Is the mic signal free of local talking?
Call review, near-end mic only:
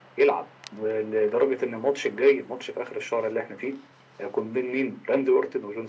Yes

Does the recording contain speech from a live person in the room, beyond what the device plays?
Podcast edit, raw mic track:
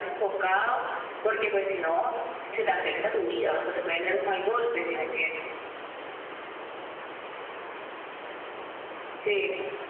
No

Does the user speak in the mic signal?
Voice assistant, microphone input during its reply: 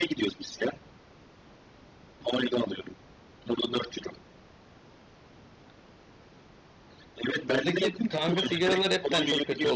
Yes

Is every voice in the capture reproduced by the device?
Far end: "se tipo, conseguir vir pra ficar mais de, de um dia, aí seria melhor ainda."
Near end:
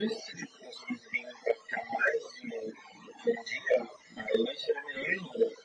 Yes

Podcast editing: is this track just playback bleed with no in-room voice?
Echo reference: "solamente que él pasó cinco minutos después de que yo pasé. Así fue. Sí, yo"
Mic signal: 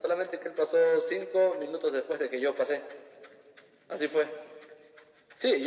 Yes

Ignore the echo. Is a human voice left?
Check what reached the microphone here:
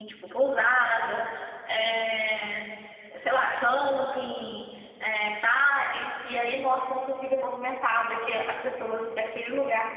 Yes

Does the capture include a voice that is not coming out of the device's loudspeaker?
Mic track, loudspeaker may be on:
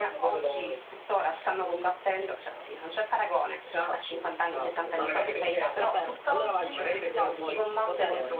Yes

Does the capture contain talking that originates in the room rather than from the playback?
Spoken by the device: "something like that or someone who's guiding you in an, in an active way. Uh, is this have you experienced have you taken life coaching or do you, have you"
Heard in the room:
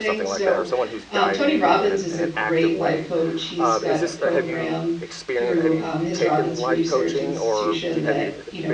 Yes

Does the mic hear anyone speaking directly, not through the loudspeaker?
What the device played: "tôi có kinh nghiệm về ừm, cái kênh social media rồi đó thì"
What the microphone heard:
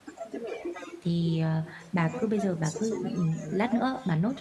Yes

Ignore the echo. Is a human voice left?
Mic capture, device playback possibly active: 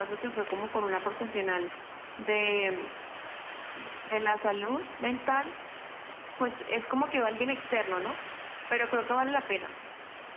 No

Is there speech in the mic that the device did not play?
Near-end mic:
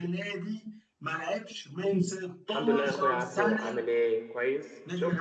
Yes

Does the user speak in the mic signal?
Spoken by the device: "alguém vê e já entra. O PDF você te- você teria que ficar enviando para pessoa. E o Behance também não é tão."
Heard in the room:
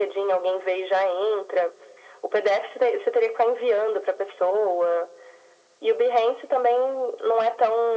No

